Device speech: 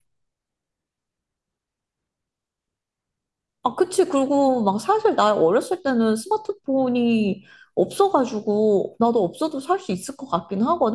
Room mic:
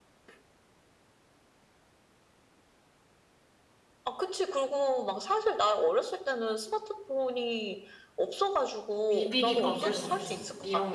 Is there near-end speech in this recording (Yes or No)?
Yes